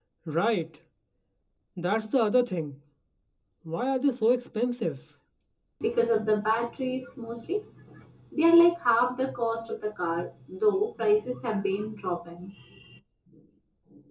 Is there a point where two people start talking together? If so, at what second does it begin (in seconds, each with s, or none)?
none